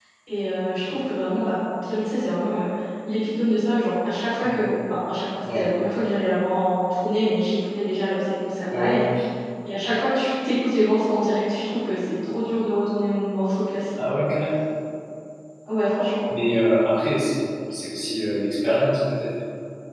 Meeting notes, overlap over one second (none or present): none